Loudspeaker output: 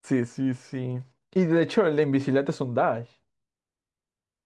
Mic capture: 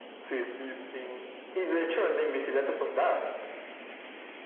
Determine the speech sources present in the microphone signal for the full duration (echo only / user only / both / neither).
echo only